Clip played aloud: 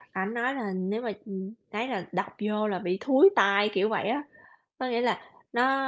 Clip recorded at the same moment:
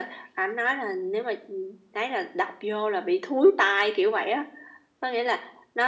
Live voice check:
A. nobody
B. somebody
A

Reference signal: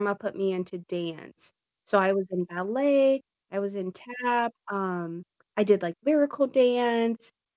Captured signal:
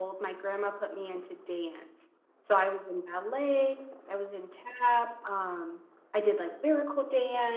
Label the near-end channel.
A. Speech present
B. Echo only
B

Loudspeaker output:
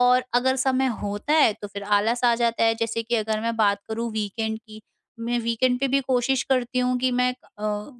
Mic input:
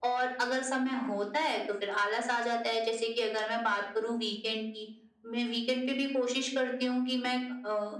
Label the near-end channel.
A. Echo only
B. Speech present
A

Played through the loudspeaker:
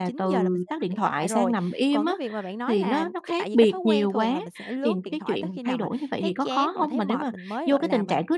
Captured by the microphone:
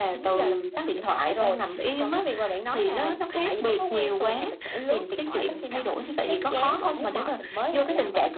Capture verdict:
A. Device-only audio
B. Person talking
A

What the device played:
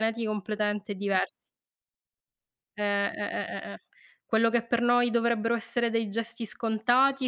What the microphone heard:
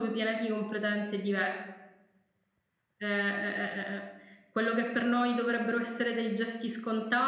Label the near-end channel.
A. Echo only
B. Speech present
A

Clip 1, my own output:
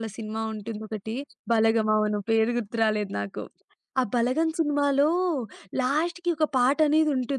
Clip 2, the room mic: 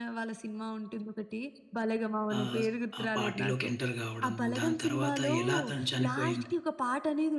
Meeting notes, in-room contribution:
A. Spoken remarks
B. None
A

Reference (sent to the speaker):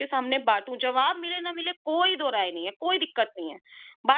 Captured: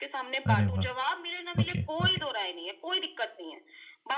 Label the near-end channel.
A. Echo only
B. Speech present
B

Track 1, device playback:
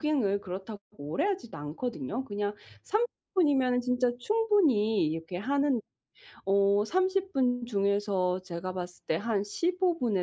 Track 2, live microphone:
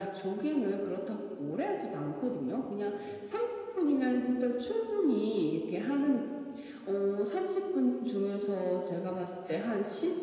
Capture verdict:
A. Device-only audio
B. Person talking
A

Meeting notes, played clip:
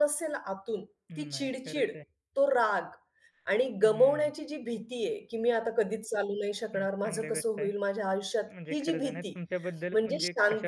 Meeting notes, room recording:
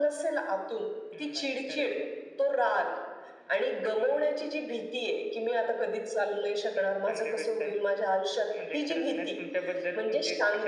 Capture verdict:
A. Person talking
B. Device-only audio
B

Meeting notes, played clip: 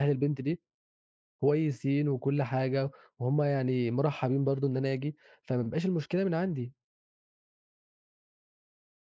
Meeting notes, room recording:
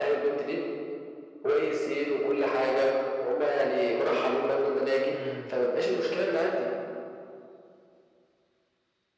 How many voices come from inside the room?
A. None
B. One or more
B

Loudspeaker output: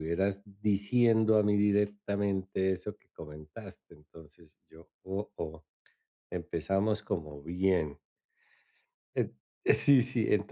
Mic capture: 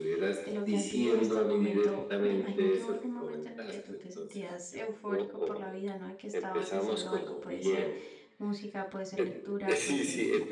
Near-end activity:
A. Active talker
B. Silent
A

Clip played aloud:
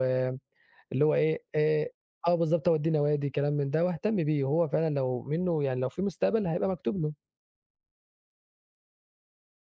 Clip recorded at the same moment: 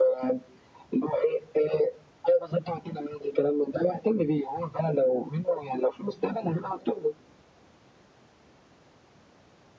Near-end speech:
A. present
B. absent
B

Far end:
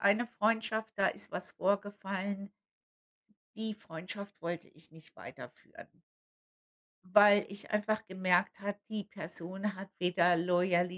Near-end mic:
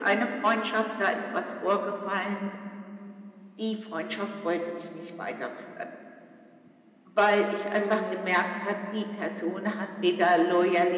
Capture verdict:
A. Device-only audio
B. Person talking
B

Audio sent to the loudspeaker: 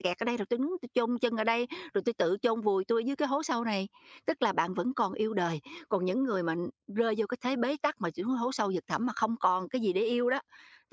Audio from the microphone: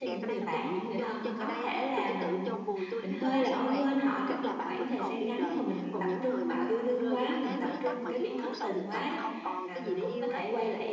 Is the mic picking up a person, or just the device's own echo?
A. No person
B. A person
B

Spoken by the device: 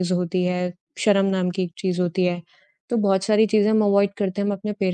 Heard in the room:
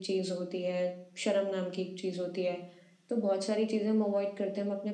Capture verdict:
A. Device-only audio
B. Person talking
A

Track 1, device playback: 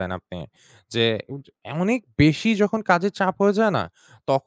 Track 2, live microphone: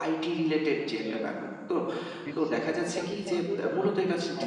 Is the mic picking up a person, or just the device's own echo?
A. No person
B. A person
B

